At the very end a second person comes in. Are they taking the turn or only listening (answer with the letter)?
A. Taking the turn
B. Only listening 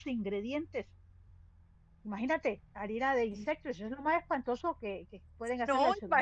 A